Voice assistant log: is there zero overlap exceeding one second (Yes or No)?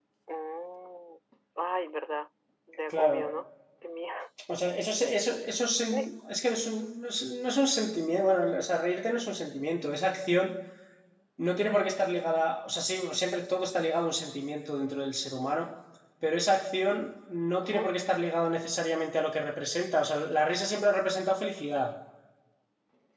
Yes